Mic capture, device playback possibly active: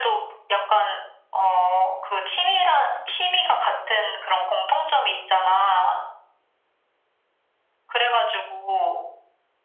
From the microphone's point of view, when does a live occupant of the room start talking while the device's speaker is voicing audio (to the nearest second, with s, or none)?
none